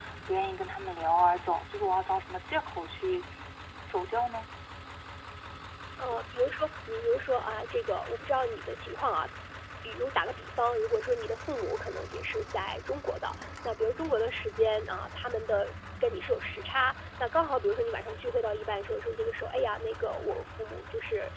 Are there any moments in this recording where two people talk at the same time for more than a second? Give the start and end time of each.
none

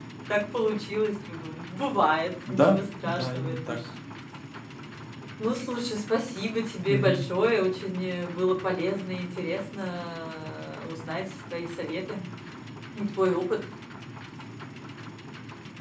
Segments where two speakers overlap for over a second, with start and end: 2.5-3.8

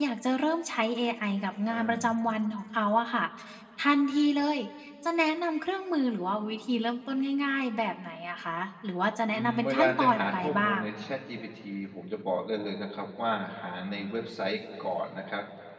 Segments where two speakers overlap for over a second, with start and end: 9.3-10.8

